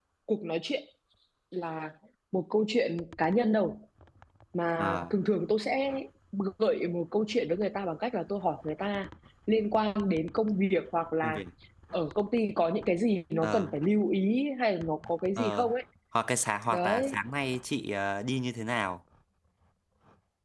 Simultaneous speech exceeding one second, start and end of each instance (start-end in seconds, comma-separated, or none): none